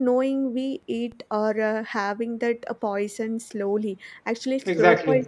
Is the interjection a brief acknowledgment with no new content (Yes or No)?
Yes